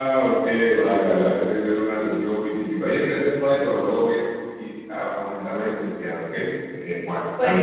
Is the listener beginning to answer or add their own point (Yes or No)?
Yes